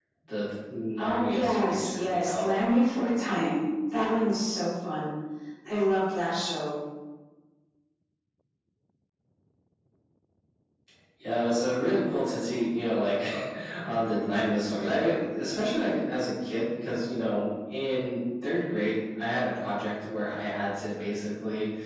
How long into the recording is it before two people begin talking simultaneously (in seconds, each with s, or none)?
1.0 s